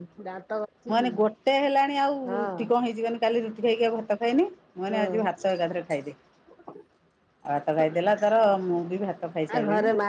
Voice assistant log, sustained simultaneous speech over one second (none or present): none